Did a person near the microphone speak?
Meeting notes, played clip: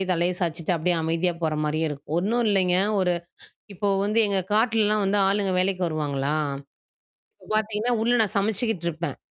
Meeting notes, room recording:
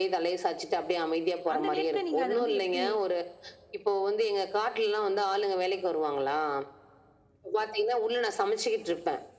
Yes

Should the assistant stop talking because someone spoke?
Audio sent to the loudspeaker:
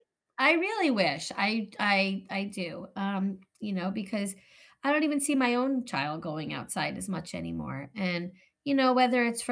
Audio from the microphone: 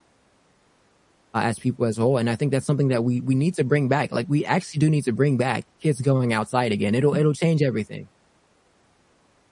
Yes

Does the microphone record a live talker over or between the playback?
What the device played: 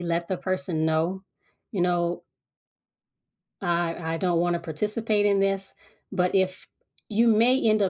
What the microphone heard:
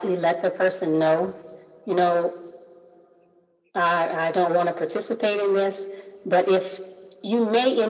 No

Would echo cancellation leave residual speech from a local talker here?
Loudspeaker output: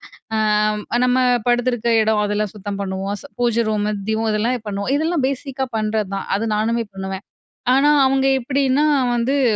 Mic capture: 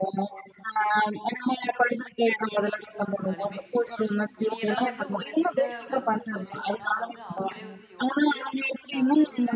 Yes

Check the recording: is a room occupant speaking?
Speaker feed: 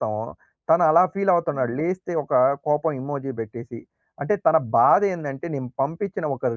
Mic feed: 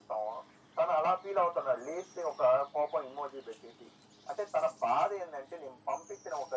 No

